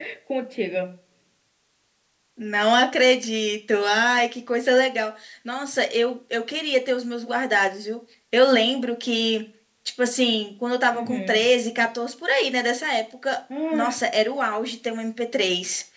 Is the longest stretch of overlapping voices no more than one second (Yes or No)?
Yes